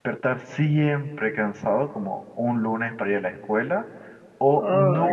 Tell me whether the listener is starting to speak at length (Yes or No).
No